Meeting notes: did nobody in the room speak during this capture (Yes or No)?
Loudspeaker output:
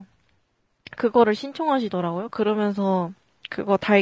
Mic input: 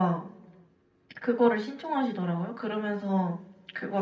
Yes